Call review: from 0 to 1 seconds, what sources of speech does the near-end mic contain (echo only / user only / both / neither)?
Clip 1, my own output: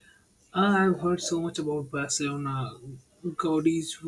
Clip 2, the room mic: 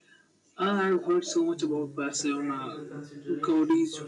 echo only